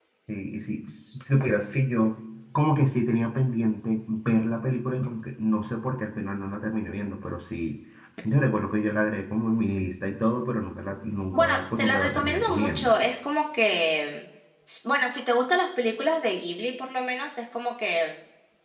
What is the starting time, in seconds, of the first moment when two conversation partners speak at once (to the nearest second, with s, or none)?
11 s